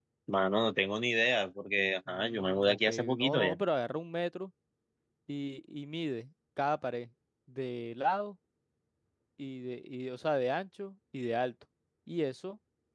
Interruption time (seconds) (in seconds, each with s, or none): 2.1 s